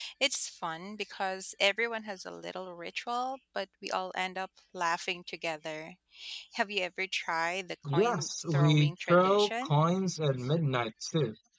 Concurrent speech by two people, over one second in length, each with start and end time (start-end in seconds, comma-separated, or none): 8.0-9.7